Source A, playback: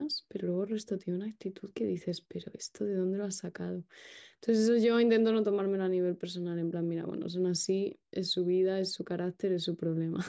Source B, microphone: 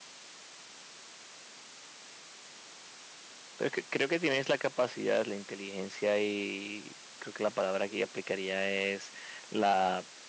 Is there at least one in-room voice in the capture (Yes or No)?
Yes